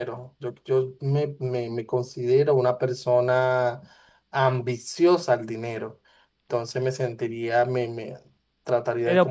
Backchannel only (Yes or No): No